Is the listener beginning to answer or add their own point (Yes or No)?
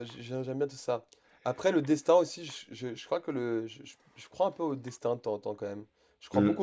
Yes